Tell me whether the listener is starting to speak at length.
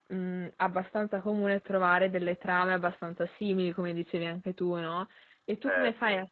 No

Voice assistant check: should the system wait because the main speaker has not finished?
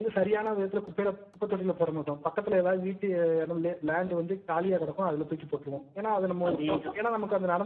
Yes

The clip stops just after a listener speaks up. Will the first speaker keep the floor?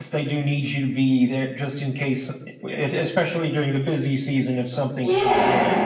No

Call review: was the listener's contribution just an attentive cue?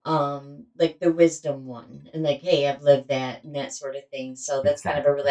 Yes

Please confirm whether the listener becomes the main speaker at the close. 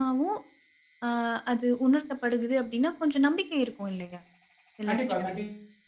Yes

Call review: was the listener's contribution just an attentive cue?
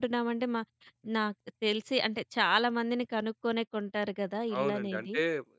No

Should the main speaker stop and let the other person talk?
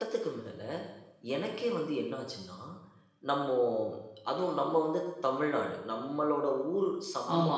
No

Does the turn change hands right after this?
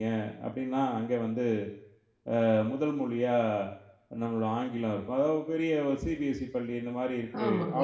No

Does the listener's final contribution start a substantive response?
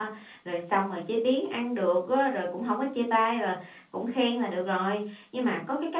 No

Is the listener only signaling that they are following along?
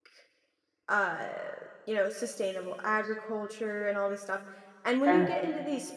Yes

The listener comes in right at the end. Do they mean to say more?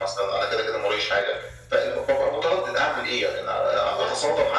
No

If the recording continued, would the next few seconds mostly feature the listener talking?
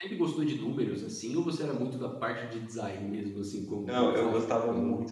Yes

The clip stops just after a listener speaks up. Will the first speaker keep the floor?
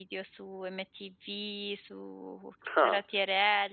Yes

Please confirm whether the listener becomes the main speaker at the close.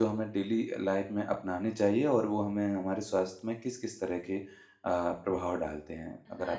Yes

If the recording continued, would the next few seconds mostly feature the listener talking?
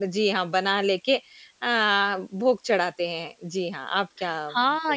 Yes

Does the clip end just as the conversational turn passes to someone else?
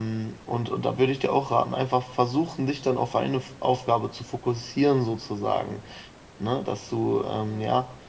No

